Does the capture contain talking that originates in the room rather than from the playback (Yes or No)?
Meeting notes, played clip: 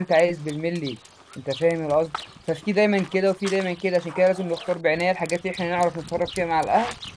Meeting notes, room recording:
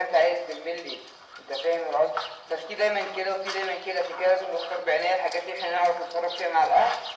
No